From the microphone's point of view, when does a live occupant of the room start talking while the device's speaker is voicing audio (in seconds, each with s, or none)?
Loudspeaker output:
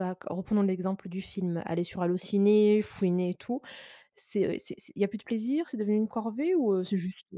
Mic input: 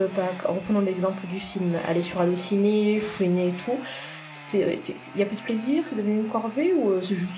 none